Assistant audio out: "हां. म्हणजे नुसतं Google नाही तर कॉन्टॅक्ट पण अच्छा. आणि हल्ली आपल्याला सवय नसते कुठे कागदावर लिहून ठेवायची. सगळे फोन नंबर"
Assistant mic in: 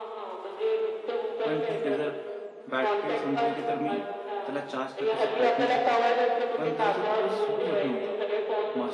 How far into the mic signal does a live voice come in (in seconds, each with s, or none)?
1.4 s